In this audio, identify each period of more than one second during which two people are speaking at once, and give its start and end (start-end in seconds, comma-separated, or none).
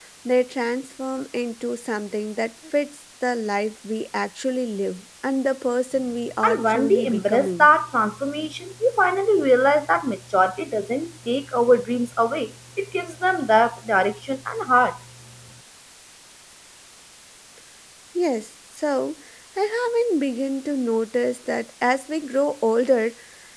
6.4-7.7